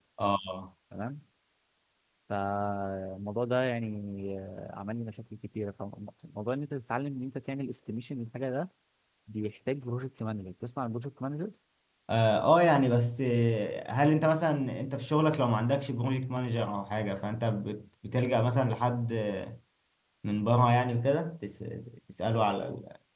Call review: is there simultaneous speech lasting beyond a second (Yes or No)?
No